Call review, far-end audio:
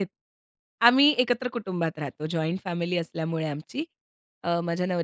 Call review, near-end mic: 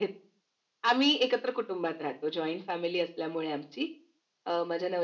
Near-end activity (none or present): none